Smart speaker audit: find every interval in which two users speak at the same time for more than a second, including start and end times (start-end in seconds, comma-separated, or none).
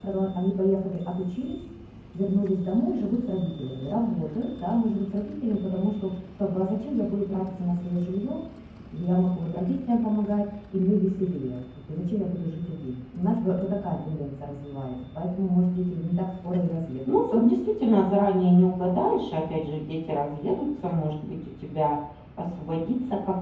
none